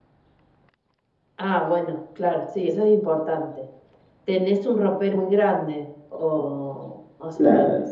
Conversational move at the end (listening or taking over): taking over